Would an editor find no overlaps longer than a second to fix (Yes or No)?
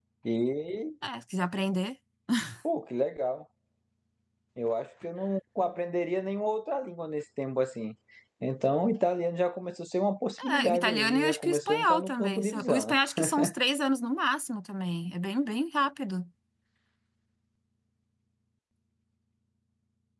No